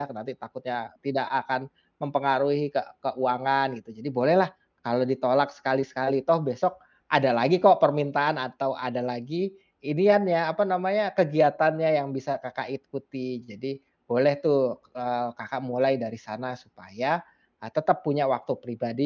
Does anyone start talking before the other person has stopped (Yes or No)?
No